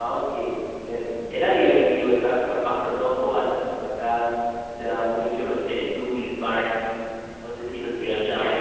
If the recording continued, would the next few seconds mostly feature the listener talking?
Yes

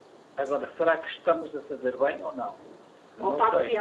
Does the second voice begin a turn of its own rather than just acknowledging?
Yes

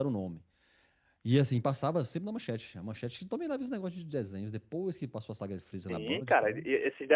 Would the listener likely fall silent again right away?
No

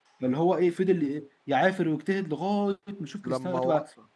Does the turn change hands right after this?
No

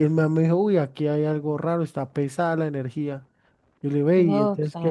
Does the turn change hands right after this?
No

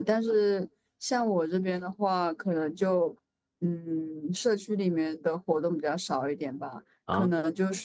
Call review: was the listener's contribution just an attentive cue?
Yes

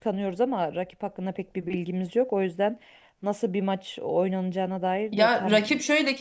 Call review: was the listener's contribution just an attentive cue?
No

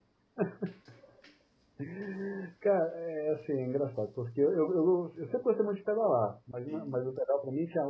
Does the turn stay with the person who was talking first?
Yes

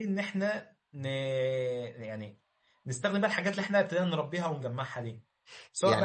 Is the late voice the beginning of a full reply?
Yes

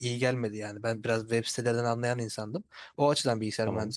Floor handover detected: No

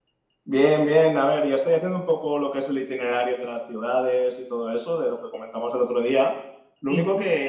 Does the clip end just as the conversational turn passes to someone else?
No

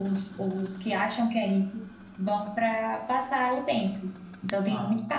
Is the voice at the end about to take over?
No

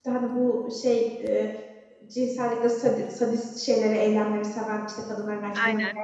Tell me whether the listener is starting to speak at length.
No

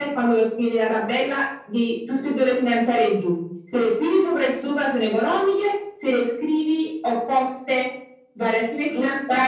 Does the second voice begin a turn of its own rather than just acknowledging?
No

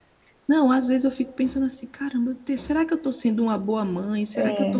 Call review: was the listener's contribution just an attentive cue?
Yes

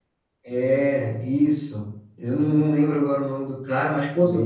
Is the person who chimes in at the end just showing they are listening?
Yes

